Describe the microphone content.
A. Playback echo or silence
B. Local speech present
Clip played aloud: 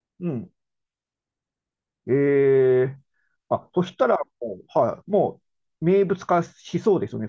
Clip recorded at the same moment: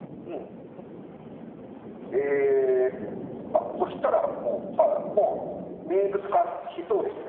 A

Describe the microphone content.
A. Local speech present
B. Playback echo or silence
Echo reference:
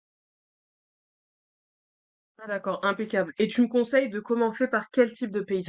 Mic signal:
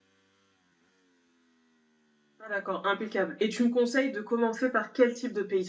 B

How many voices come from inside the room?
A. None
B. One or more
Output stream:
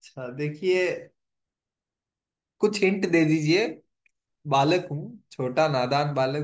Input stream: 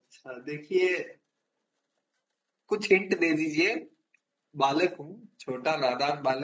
A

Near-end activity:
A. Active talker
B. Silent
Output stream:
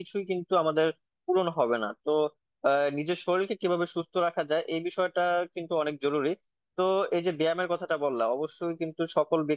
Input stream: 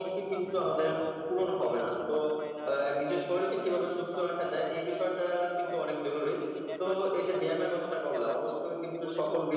A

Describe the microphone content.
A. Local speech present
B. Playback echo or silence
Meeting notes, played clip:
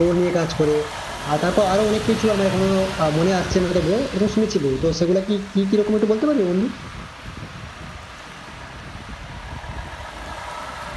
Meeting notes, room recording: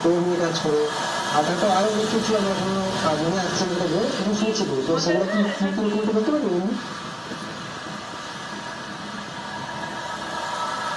A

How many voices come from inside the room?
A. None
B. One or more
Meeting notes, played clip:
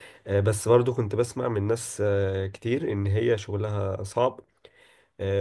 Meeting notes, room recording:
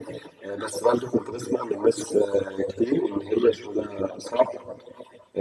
A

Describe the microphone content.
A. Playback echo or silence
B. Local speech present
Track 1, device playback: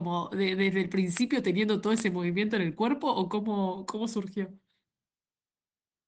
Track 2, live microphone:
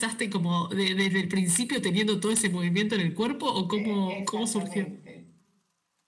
B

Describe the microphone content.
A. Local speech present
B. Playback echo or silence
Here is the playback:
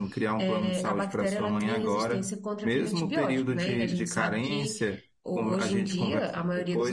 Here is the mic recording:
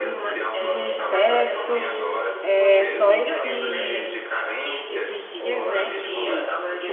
A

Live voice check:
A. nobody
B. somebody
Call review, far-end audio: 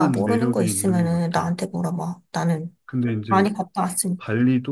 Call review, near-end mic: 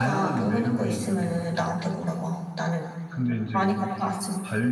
A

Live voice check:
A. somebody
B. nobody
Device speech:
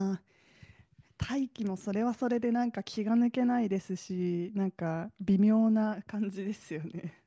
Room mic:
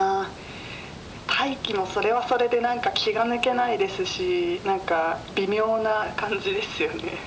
B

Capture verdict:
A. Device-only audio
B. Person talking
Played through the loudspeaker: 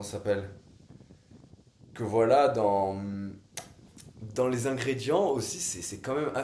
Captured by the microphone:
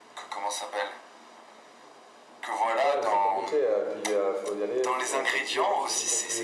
B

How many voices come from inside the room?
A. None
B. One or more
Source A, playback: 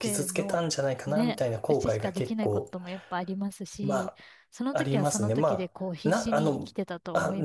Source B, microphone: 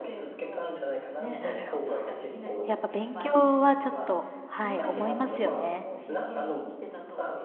B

